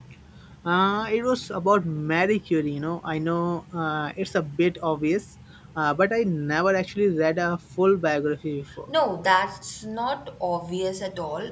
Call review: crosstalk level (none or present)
none